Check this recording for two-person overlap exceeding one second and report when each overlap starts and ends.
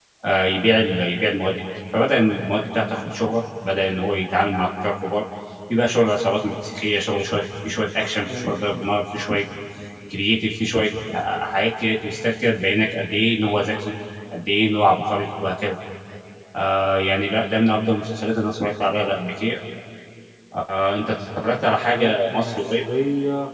21.6-22.8

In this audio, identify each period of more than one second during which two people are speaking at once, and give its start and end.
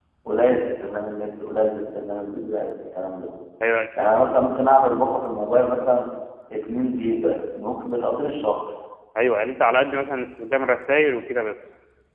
none

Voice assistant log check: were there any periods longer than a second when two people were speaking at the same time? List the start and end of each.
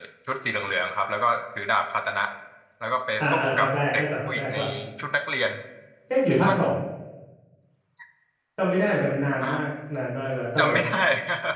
3.2-4.6

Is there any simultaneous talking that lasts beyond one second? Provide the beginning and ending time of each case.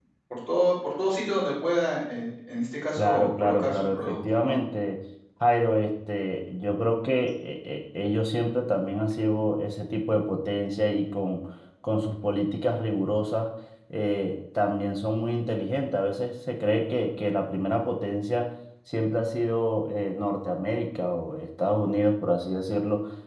3.0-4.6

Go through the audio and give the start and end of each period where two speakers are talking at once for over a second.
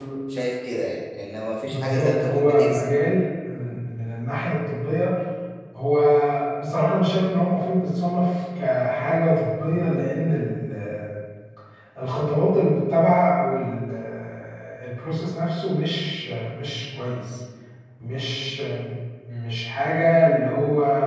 1.6-3.0

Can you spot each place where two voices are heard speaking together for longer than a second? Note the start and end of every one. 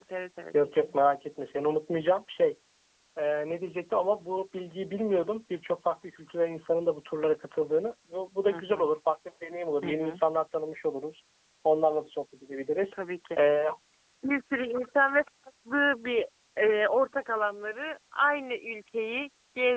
none

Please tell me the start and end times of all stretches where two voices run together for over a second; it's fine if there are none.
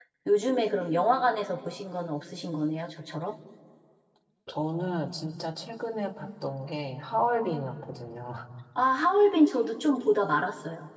none

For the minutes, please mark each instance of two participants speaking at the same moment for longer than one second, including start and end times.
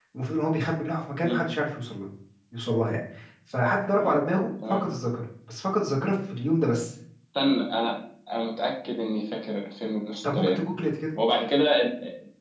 none

